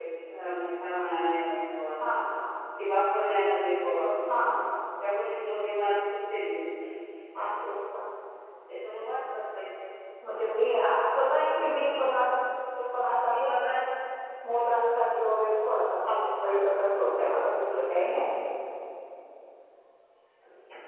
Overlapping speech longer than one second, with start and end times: none

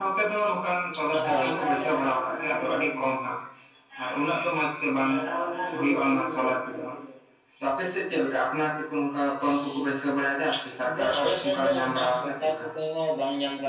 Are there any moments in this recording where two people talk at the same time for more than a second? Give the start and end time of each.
11.0-12.7

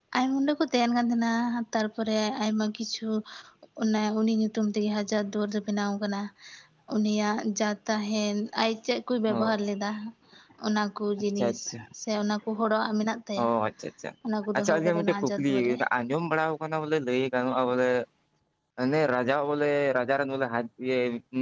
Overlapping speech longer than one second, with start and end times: 14.6-15.8

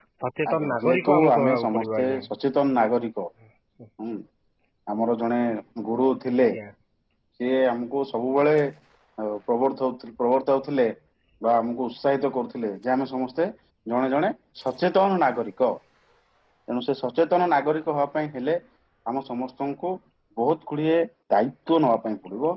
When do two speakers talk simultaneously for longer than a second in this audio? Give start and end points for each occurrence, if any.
0.5-2.2

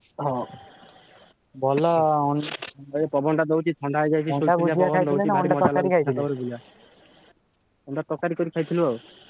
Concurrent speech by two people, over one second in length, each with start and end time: 4.3-6.2

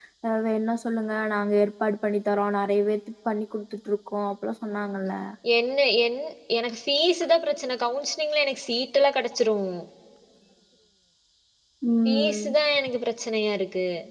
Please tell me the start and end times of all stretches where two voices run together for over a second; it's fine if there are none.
none

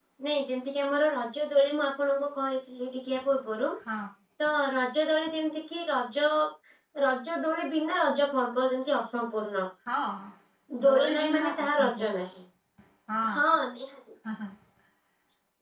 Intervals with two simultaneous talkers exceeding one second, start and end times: 10.9-12.3

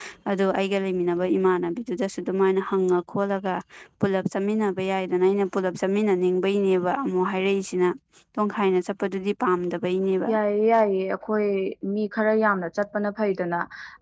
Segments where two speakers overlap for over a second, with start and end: none

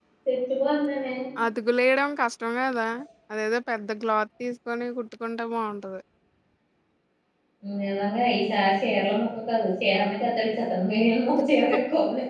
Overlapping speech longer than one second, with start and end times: none

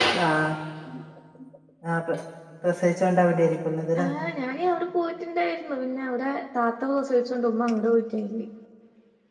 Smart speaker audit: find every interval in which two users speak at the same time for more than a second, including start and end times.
none

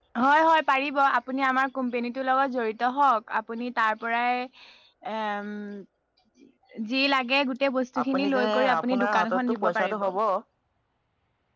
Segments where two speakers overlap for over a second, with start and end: 8.0-10.1

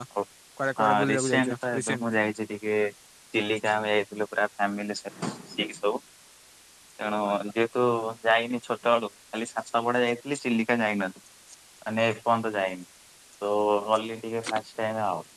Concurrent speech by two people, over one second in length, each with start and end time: 0.8-2.0

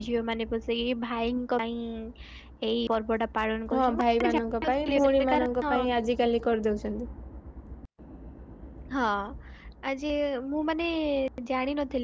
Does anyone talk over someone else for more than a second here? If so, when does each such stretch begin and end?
3.7-5.7

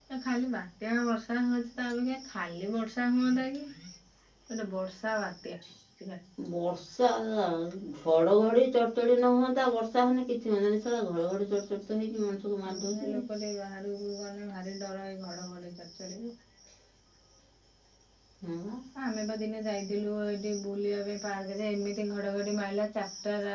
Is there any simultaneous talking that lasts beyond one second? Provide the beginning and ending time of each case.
none

